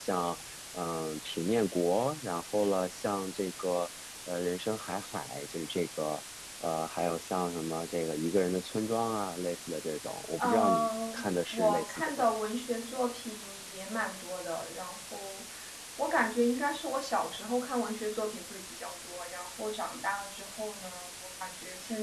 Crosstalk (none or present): present